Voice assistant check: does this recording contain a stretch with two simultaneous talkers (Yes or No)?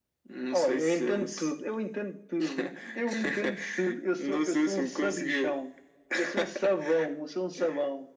Yes